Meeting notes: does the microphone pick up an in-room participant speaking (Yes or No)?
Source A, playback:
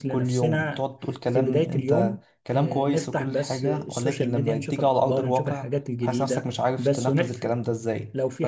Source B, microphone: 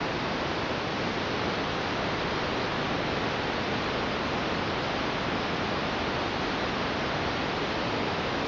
No